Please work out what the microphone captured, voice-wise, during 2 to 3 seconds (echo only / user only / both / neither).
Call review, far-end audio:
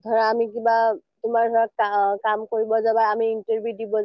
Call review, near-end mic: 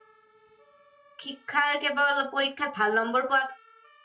user only